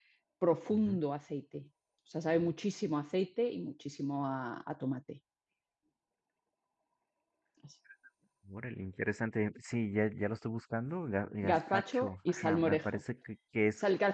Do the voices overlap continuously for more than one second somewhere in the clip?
Yes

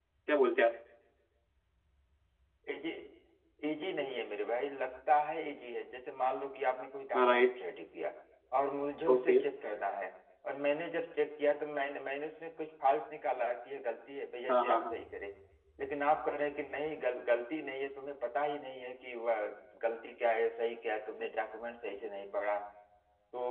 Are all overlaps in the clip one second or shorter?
Yes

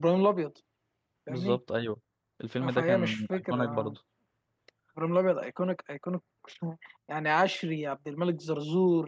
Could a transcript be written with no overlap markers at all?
No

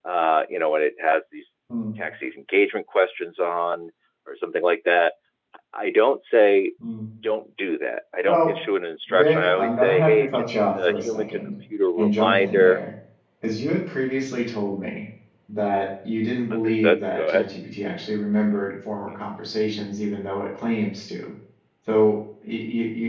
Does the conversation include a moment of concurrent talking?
Yes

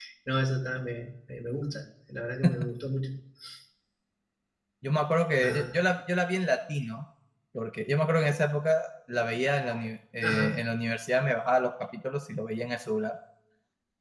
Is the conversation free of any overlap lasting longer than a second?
Yes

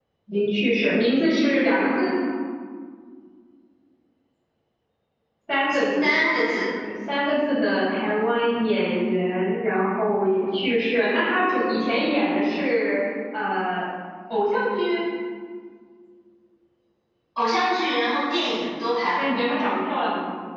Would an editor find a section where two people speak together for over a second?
No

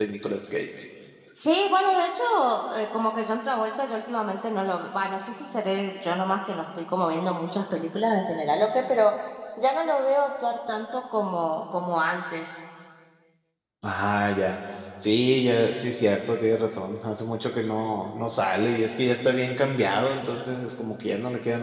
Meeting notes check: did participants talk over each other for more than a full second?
No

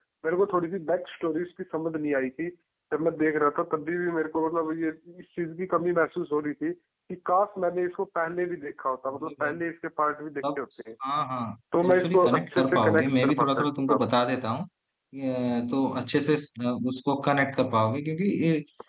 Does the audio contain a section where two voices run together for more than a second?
Yes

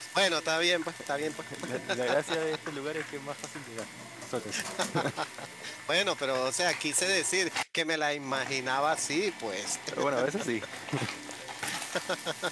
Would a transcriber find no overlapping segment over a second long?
Yes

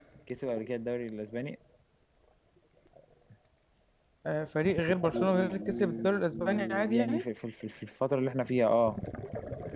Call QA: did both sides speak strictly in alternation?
No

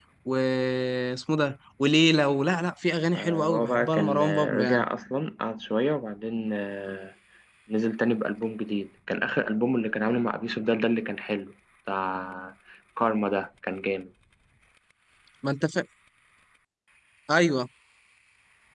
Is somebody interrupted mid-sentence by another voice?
Yes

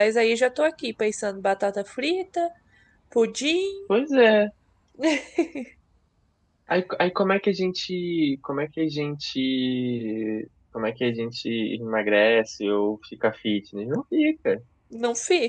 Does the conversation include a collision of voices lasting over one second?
No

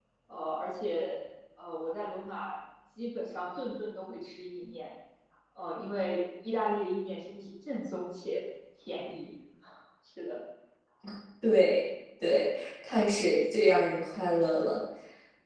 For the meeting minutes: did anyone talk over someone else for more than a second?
No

